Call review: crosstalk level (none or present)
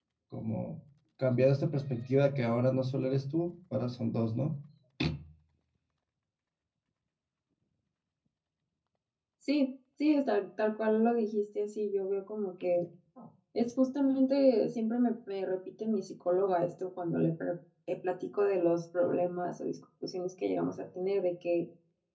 none